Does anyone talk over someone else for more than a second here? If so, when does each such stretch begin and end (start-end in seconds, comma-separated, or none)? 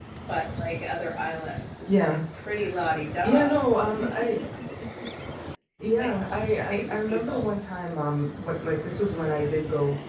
6.0-7.4